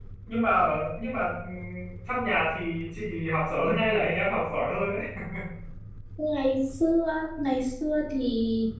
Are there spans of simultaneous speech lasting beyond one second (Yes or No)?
No